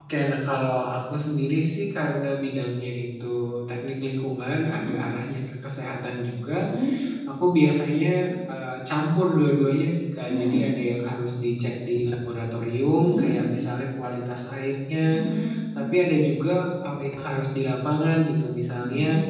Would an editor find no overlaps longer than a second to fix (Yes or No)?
Yes